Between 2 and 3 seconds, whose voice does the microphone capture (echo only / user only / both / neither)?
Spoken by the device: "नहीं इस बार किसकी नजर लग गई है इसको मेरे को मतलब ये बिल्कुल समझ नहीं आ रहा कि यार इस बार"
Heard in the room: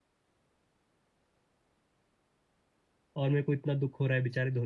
neither